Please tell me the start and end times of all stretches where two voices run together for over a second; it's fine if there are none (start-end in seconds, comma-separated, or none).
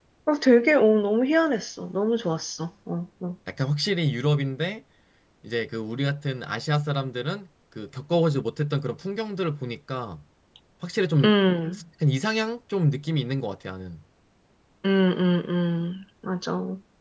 none